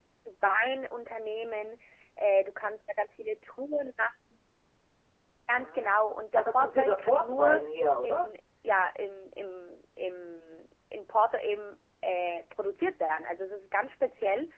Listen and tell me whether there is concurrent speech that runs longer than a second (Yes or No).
Yes